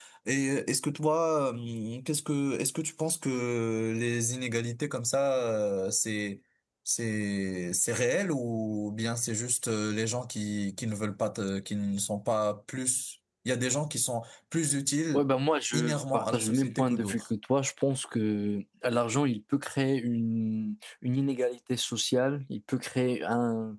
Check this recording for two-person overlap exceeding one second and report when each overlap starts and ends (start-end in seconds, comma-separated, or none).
15.7-17.2